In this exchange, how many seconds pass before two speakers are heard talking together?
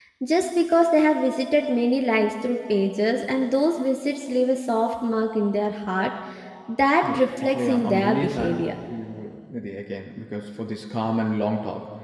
7.0 s

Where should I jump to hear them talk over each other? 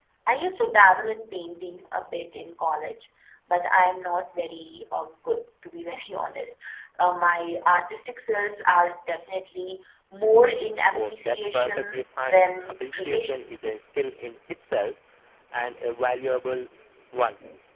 10.9 s

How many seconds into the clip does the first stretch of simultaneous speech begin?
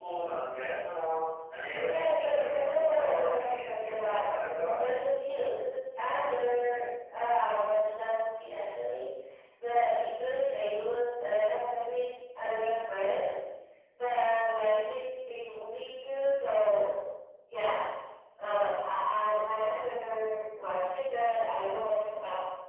1.8 s

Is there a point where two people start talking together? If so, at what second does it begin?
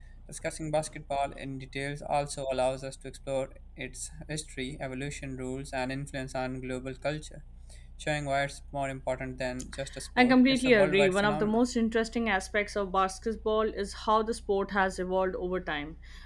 10.2 s

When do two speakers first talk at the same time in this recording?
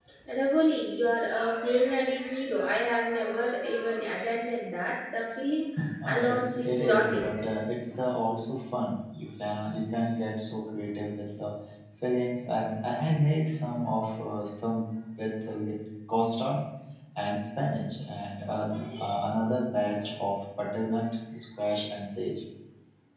6.1 s

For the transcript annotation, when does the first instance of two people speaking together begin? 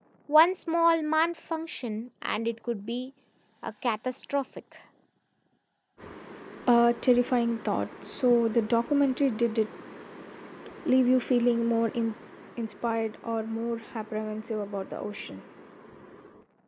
none

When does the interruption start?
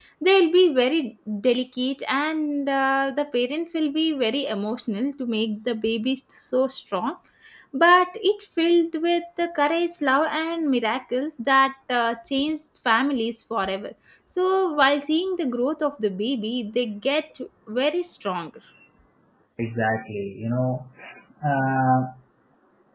none

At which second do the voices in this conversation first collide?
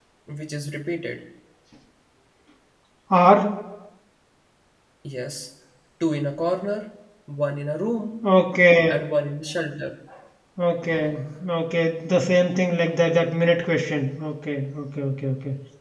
none

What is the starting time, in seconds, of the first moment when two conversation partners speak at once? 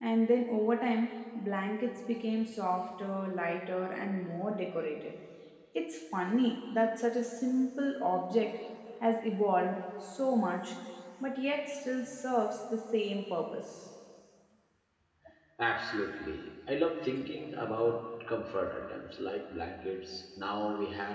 none

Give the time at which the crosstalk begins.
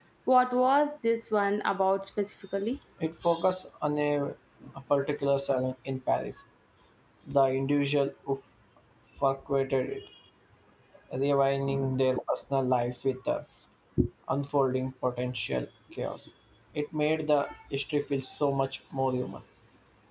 none

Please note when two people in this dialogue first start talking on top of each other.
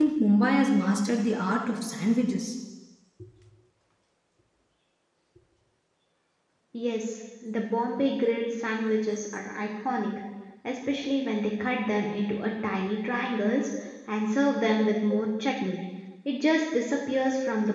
none

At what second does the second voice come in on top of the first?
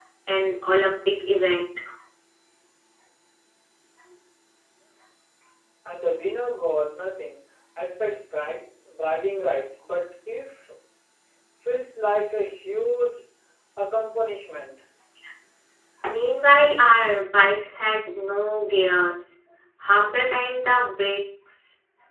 none

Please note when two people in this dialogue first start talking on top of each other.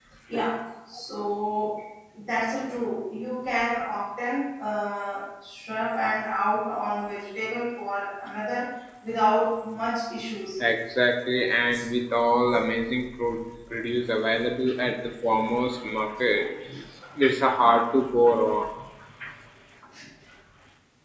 none

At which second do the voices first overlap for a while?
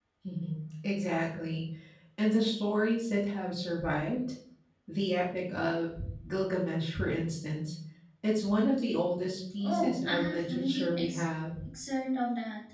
9.6 s

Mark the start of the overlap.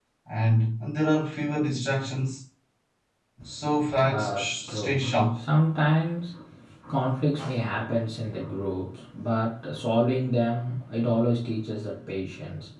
4.1 s

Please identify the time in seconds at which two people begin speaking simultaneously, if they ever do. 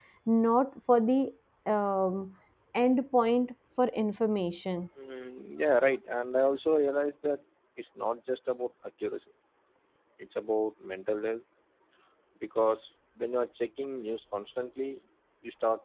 none

